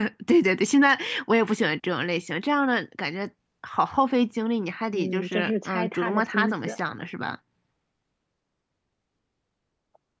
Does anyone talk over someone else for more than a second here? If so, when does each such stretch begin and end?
4.9-6.8

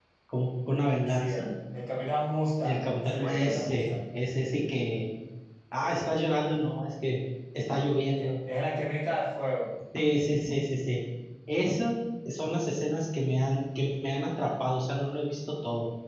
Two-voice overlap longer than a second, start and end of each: 2.6-3.9

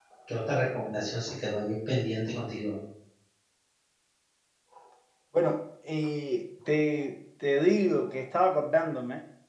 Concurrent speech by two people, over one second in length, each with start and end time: none

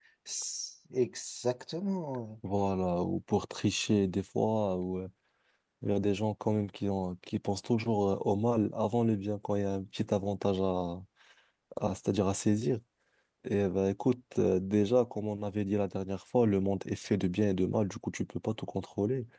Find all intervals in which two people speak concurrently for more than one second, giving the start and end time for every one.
none

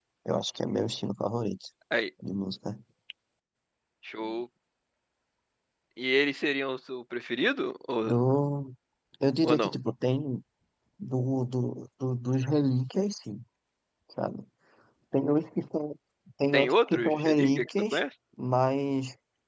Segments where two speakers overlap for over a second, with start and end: 16.5-17.9

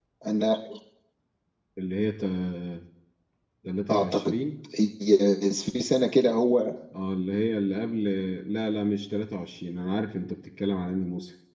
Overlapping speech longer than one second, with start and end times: none

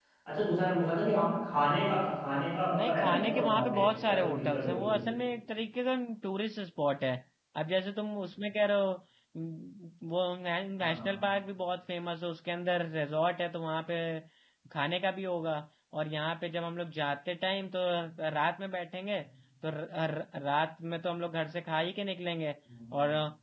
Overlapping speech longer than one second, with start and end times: 2.8-5.0

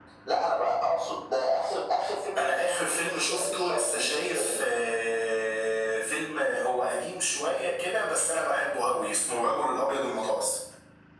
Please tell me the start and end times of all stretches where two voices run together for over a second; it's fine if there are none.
2.4-4.6

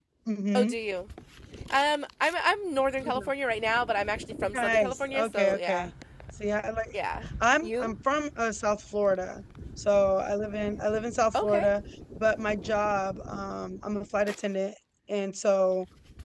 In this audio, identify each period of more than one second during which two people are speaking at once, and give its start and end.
4.5-5.9

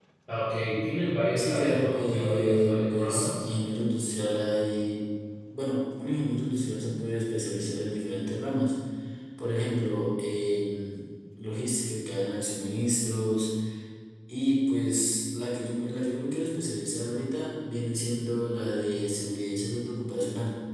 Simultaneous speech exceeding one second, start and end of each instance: 1.4-3.5

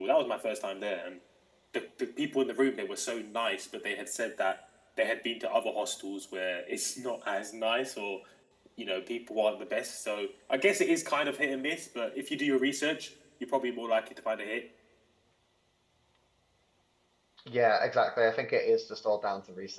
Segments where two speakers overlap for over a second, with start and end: none

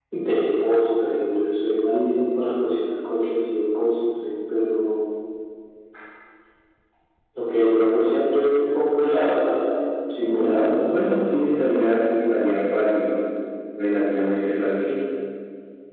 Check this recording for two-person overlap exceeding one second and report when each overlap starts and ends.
10.2-11.5

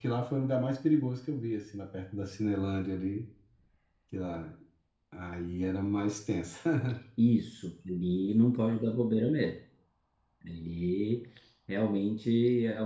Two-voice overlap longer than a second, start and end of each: none

